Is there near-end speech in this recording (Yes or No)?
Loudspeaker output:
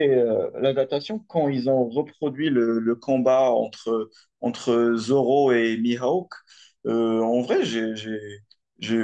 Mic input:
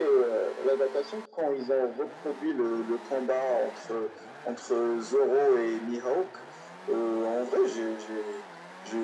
No